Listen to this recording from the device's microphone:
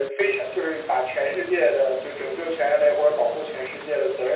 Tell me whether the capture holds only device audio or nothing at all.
Yes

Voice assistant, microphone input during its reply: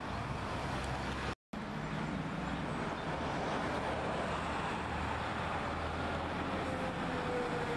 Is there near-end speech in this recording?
No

